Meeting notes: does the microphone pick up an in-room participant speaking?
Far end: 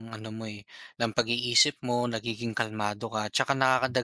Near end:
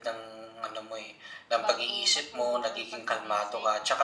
Yes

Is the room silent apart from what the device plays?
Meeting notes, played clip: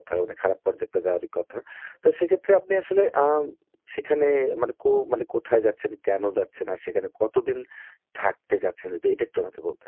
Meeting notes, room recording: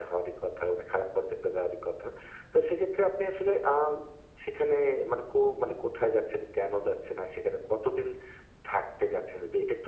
Yes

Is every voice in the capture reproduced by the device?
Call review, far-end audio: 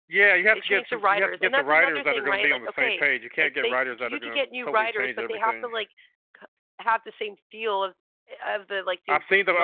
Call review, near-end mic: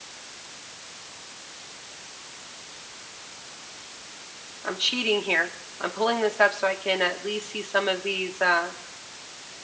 No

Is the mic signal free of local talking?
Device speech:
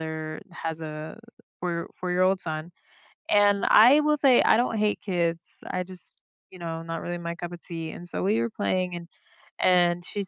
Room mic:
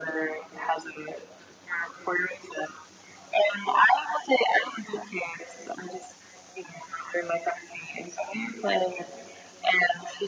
Yes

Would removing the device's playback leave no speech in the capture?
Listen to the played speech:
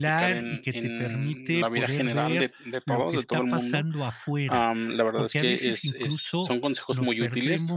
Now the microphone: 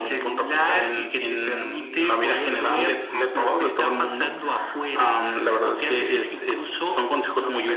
No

